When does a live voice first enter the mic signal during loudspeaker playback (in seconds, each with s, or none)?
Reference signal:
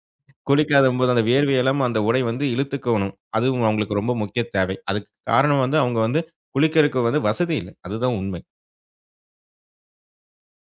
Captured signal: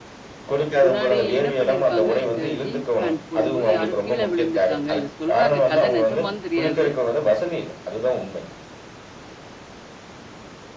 0.8 s